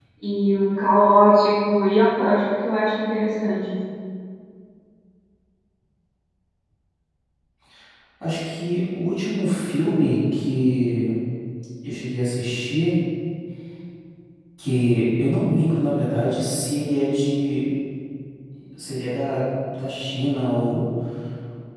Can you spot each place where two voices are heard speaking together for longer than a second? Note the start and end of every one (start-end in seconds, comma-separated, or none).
none